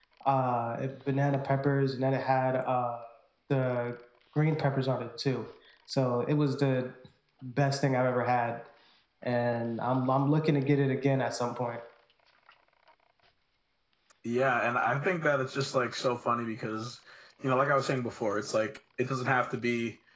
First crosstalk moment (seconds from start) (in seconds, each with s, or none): none